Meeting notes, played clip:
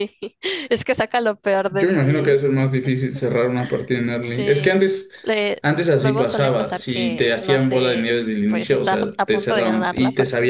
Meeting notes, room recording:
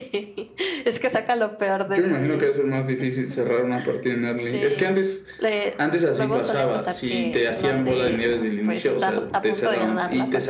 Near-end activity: none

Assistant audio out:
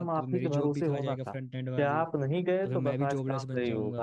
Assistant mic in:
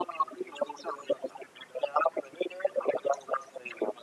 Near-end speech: none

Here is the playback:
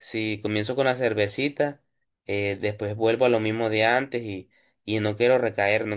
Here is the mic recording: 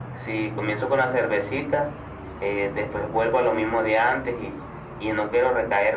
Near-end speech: none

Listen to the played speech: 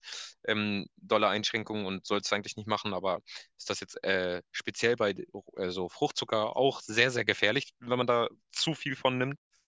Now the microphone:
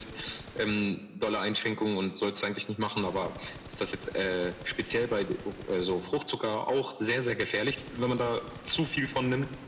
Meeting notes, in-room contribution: none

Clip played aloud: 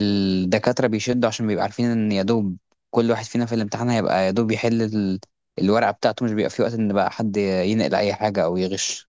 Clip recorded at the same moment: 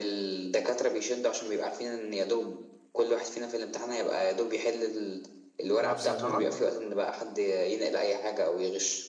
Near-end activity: present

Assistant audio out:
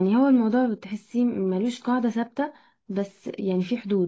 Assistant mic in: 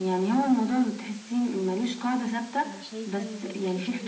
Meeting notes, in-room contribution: present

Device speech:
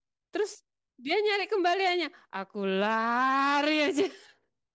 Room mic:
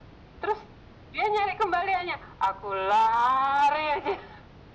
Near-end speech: none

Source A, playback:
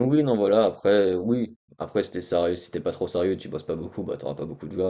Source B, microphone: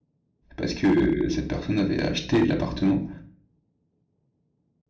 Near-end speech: present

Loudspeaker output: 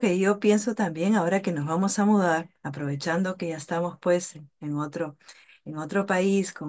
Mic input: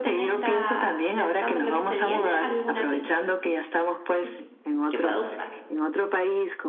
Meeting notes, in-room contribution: present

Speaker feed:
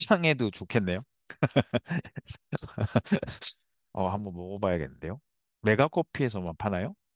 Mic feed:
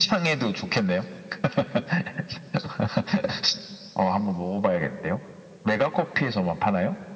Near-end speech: none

